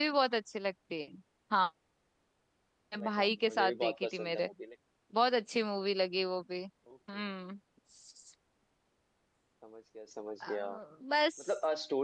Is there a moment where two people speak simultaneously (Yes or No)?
Yes